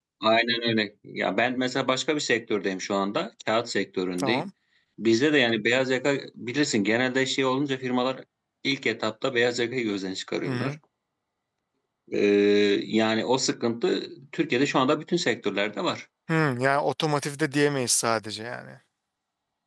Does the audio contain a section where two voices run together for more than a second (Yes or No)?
No